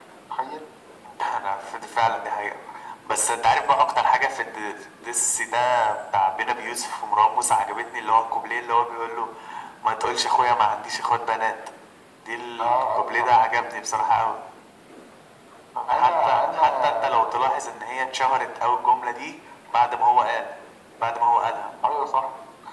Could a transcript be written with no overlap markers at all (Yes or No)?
No